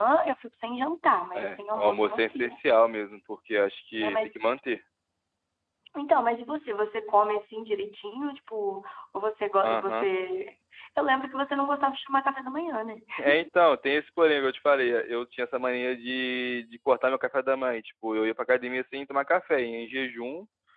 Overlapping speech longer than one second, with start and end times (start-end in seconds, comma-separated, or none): 1.3-2.6